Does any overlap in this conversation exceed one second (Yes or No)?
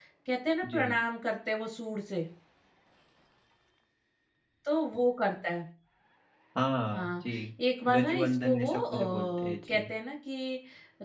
Yes